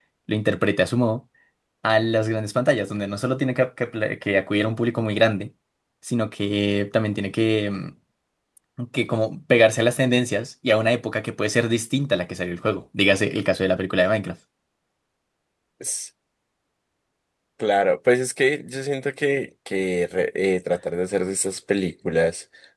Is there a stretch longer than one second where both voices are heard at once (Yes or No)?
No